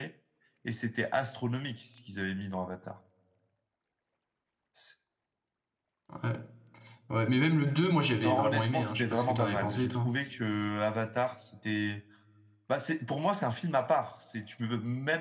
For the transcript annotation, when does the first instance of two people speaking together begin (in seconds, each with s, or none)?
8.2 s